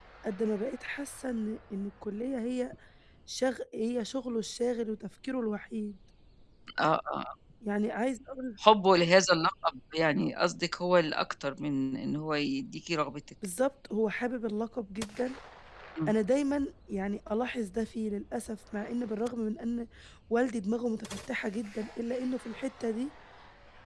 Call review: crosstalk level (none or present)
none